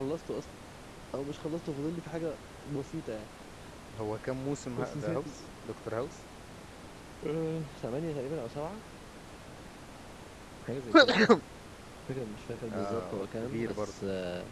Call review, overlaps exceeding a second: present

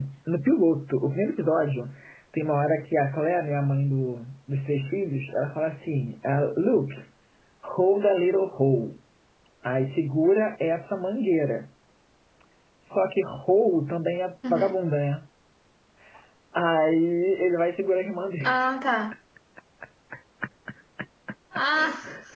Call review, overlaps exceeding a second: none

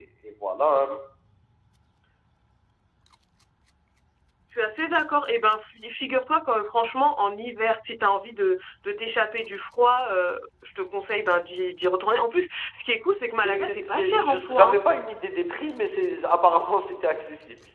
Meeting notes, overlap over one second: present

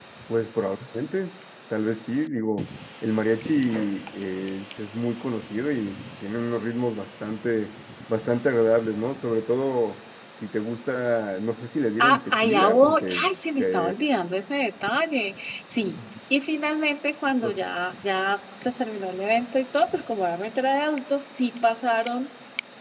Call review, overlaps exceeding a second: present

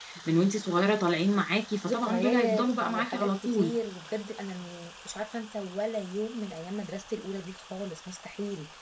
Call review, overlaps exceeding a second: present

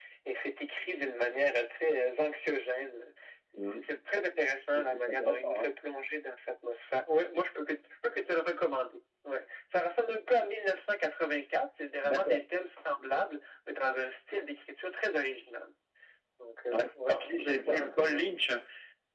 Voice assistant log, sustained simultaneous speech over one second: present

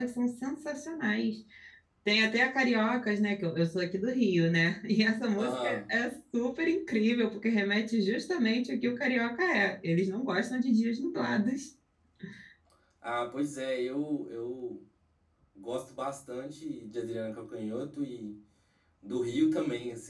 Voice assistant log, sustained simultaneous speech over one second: none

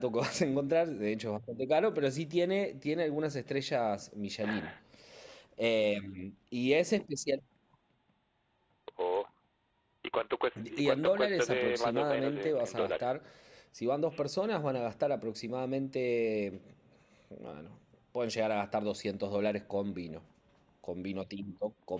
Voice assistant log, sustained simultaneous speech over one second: present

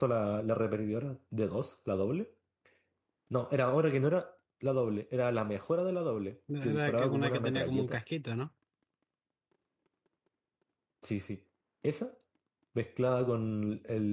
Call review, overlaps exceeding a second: present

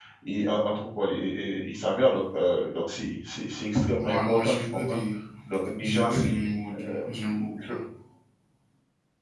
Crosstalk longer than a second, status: present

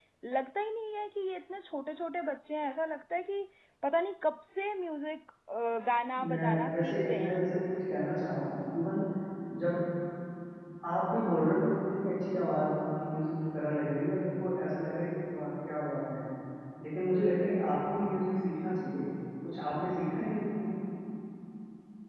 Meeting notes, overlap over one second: present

